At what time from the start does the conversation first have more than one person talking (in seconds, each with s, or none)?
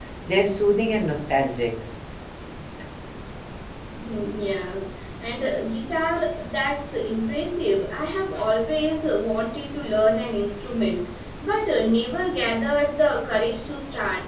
none